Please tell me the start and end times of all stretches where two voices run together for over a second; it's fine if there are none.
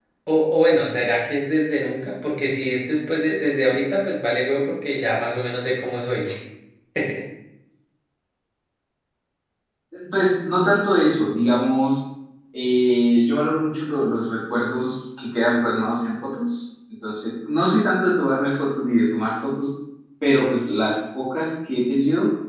none

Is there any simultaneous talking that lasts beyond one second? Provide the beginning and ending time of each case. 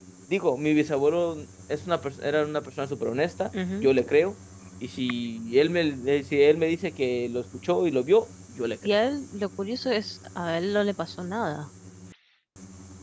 none

